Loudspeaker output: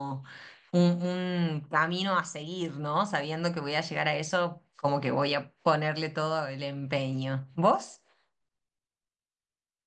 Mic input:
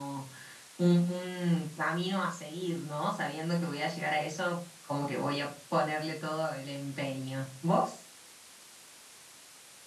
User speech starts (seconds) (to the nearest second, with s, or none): none